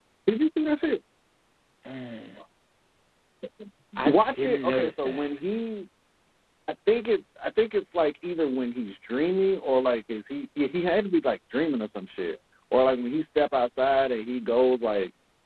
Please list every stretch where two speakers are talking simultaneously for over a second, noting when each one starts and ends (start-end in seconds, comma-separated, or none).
4.0-5.2